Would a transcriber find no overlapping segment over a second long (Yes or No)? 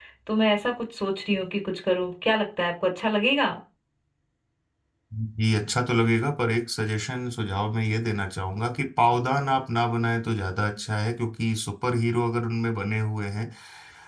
Yes